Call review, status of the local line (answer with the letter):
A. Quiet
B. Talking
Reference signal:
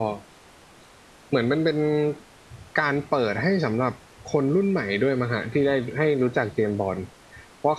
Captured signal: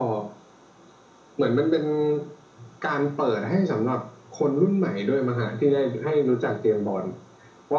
A